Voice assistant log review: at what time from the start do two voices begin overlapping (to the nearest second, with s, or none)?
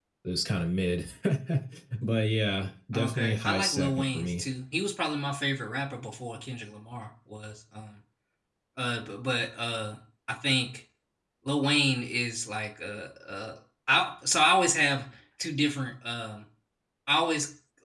3 s